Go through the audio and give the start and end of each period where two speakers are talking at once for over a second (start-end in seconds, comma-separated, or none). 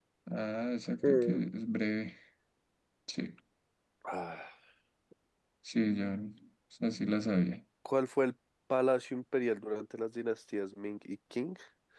none